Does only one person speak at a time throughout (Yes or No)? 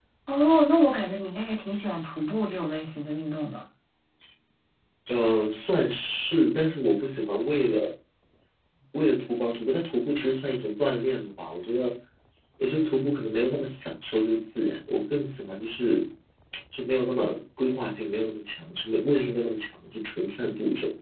Yes